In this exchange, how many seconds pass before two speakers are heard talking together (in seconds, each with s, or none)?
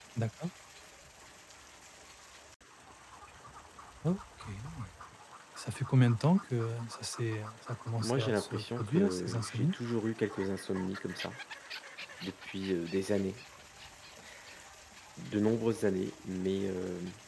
8.0 s